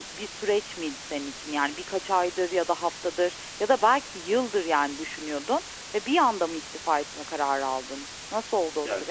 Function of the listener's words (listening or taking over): taking over